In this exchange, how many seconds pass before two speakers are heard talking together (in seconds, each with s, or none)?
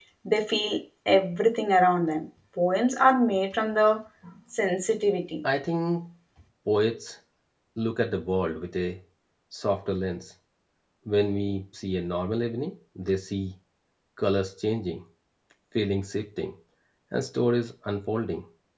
none